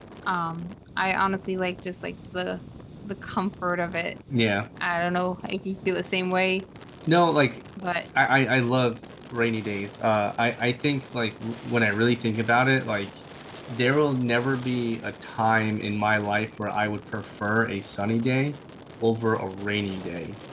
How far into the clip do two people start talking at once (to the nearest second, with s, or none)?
none